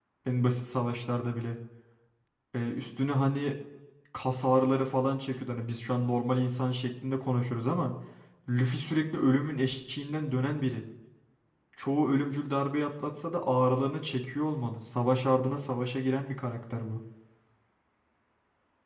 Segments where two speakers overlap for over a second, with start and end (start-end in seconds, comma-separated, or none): none